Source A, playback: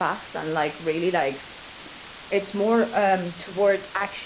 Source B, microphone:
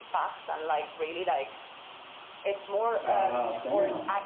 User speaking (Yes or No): Yes